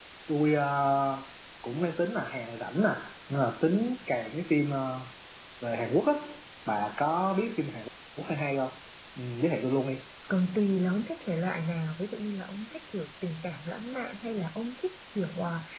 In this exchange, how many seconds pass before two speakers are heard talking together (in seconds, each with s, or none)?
none